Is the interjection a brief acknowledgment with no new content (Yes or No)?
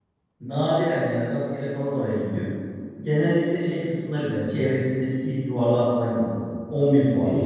No